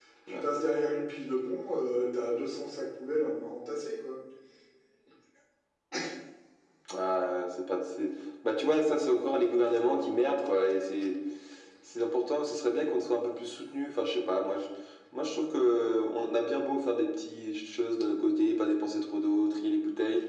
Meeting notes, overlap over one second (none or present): none